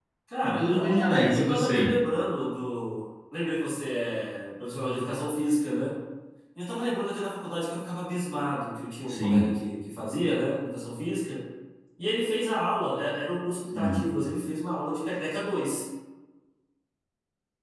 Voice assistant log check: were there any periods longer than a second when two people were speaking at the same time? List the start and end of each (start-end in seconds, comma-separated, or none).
0.6-1.9